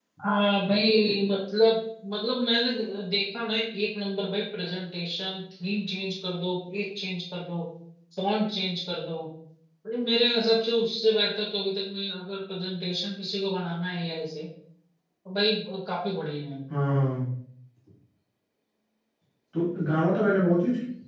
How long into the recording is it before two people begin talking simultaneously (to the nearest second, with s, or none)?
none